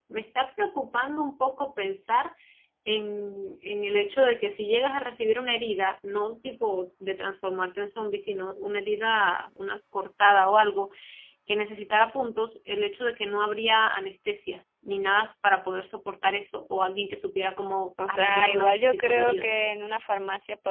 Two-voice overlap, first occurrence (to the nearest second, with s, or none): 18 s